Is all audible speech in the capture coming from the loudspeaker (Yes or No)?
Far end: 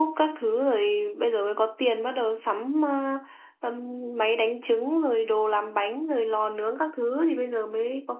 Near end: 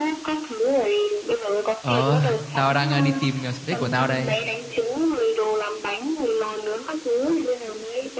No